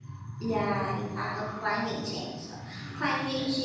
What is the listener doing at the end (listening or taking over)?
listening